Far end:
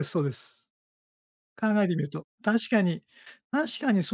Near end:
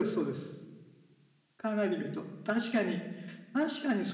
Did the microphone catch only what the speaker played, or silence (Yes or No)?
Yes